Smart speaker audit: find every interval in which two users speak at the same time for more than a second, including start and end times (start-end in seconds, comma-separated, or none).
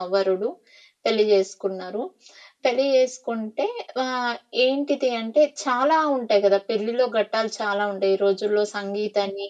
none